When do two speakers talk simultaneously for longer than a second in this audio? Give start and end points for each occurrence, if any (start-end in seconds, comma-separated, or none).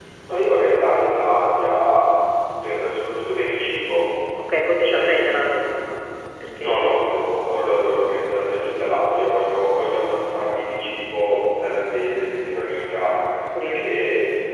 none